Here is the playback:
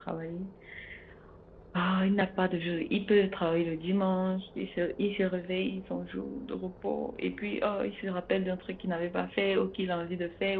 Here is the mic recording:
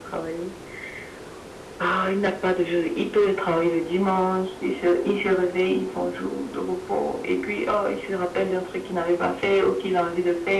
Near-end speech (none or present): none